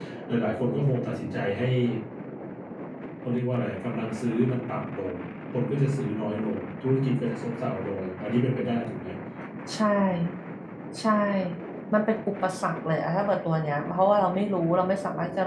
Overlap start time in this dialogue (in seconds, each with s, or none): none